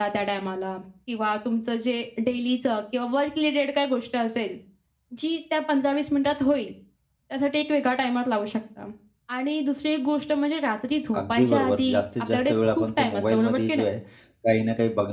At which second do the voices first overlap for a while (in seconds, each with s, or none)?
11.1 s